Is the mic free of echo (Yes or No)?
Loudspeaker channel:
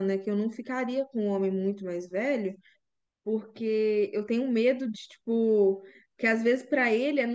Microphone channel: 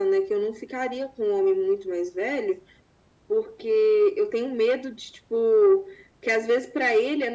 No